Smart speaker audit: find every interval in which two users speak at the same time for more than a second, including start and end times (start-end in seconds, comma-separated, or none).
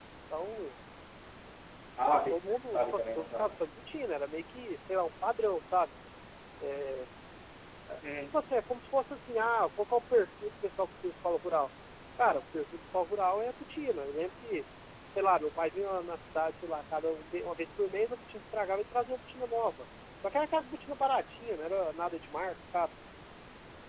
2.1-3.6